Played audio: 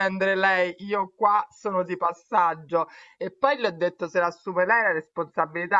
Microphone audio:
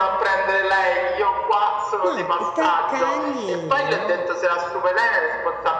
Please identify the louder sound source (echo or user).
echo